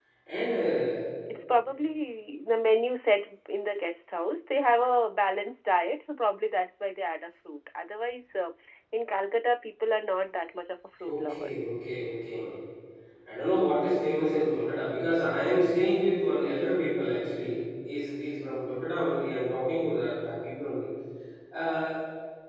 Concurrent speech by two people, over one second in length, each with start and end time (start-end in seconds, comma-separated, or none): none